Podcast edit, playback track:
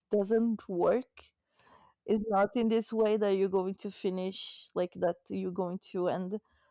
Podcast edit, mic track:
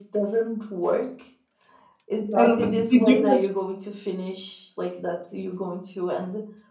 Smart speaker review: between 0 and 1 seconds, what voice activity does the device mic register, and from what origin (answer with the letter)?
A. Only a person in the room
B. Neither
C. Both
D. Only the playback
D